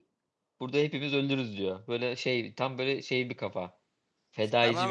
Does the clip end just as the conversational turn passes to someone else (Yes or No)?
Yes